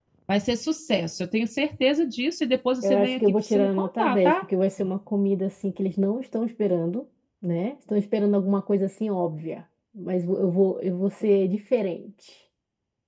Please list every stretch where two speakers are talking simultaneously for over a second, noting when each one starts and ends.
2.8-4.4

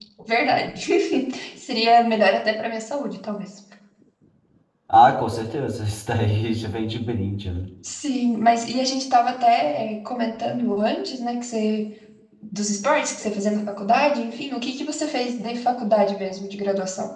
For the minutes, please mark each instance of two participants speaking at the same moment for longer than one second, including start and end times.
none

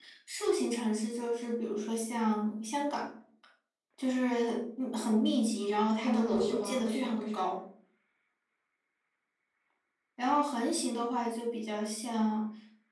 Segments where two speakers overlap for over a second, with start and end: 6.0-7.4

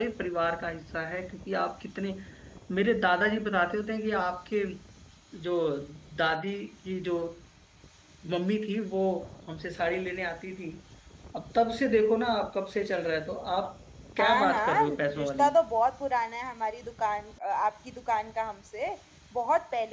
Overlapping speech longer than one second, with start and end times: 14.2-15.5

